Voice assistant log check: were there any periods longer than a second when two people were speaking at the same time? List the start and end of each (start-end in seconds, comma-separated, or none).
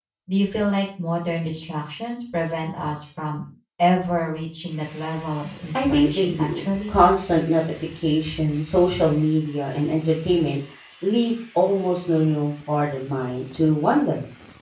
5.7-6.9